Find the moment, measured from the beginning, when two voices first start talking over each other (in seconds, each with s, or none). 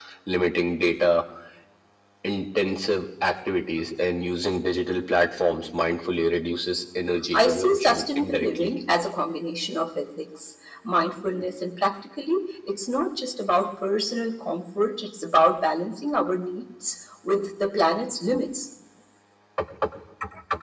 7.3 s